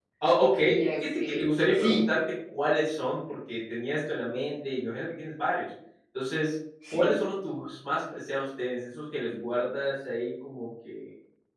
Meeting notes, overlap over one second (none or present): present